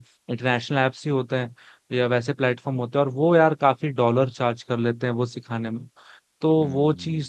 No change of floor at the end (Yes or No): Yes